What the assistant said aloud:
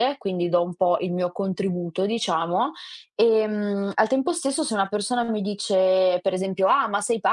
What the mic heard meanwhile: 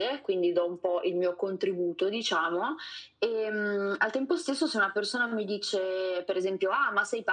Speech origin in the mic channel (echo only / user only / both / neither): echo only